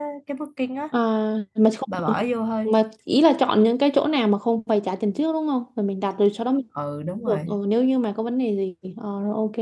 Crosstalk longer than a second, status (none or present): none